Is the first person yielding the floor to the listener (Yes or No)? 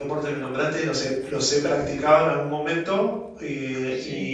No